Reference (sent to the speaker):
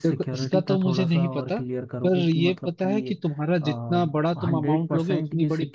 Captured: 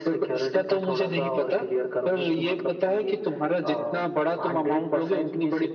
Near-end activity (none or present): none